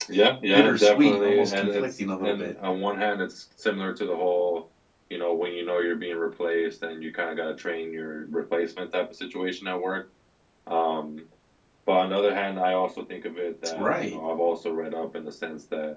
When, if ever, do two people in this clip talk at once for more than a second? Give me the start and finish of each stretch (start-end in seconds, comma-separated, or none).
0.5-2.5